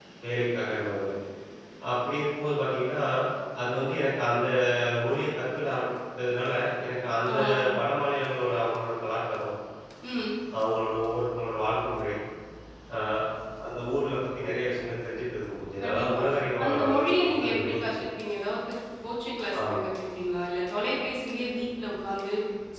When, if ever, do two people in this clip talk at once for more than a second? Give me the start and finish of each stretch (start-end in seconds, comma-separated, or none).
16.6-18.0